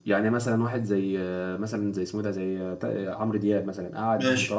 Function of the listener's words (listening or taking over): listening